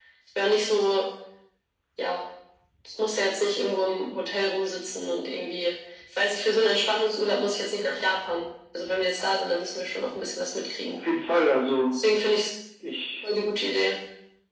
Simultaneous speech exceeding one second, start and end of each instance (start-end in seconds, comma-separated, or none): none